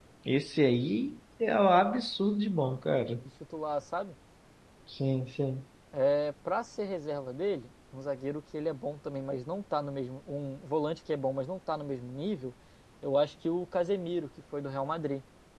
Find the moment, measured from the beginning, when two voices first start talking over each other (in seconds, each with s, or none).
none